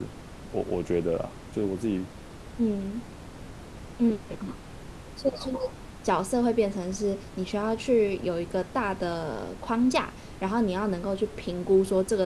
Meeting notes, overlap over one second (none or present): none